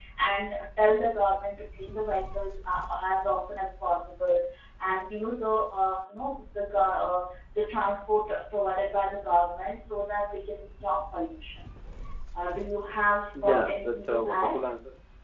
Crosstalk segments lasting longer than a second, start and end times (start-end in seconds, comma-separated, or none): 13.4-14.6